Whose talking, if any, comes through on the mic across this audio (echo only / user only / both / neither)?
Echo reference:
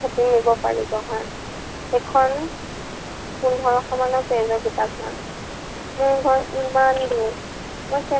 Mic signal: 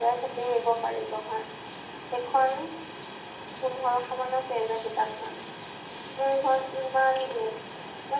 echo only